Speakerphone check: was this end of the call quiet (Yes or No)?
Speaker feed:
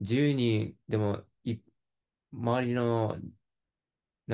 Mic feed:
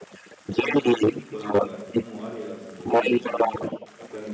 No